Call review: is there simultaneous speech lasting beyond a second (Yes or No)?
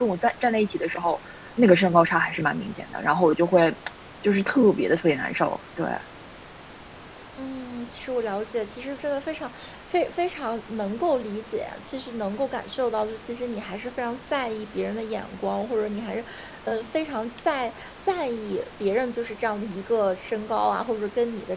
No